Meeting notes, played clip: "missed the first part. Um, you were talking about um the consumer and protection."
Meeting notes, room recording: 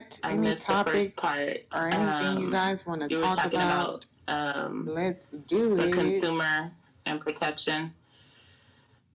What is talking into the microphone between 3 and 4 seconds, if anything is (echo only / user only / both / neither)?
both